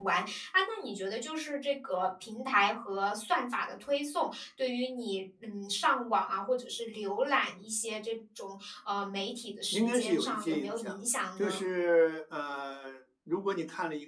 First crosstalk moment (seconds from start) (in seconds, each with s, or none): 9.7 s